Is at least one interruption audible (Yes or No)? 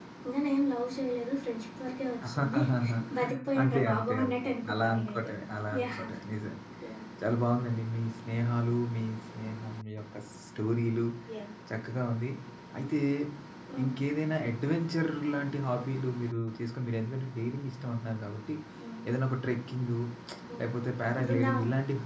Yes